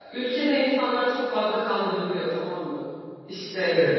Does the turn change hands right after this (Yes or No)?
No